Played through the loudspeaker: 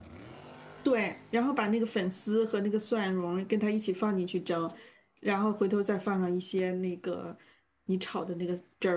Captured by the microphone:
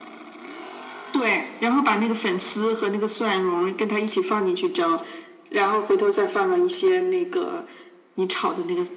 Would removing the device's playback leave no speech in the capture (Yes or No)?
Yes